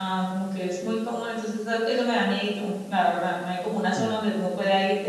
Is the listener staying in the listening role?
Yes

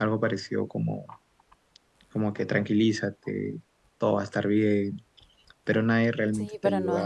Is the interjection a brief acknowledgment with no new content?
No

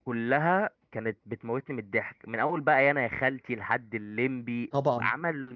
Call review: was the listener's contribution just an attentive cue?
Yes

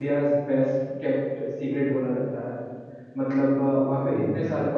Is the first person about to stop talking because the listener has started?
No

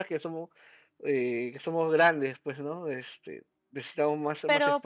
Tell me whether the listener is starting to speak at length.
Yes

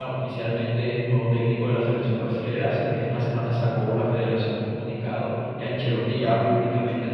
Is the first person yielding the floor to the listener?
No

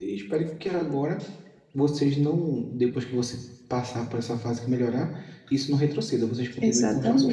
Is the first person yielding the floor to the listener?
Yes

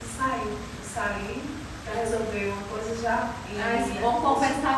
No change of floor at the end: No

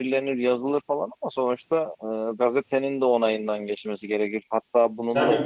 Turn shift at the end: No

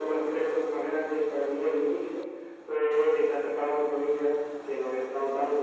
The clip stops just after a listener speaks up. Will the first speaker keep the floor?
Yes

